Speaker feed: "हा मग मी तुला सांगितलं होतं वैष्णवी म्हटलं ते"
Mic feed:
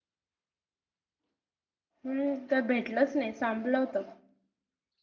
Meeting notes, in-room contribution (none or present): present